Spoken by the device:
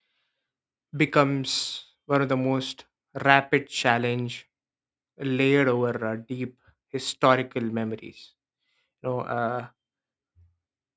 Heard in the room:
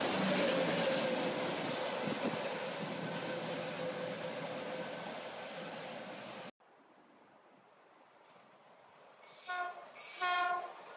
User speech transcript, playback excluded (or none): none